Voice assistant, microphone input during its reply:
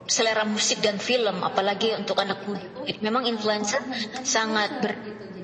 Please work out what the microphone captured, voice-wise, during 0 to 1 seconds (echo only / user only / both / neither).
both